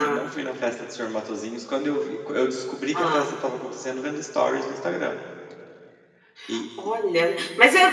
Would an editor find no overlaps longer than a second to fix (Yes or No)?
Yes